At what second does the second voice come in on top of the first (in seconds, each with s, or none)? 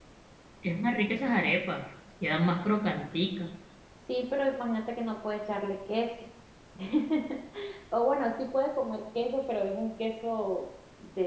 none